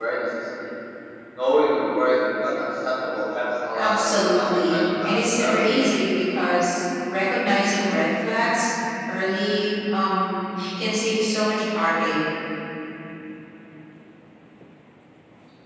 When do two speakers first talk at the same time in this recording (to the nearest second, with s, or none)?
4 s